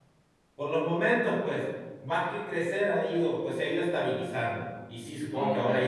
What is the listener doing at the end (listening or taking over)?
listening